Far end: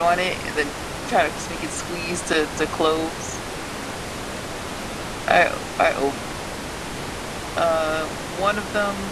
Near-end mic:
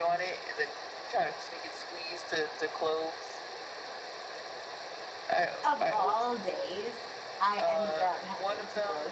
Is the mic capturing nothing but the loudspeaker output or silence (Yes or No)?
No